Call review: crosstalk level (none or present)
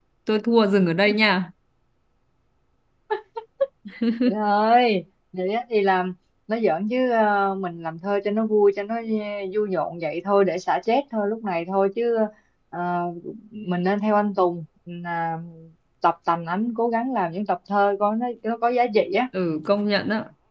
none